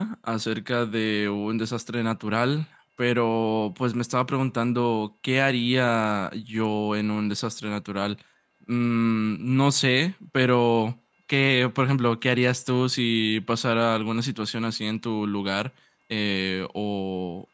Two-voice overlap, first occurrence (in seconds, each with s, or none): none